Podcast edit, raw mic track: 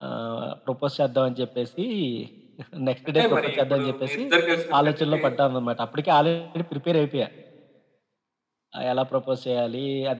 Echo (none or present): present